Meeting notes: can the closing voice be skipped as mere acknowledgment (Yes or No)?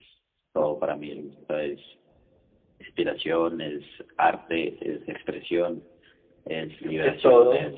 No